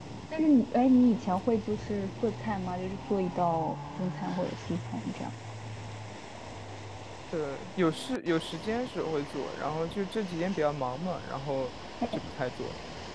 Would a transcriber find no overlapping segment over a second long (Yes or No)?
Yes